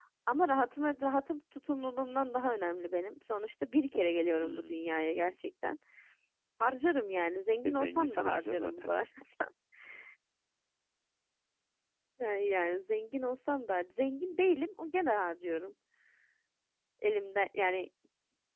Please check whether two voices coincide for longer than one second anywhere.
Yes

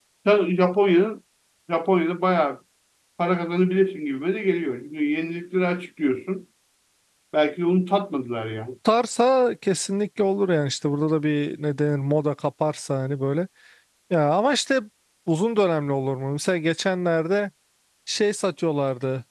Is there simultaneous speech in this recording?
No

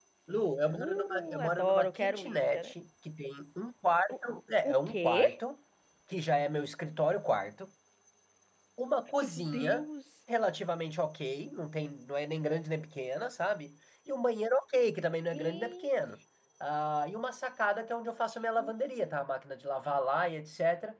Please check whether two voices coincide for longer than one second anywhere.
Yes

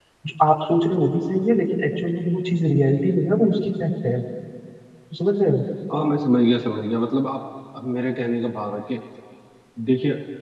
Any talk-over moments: No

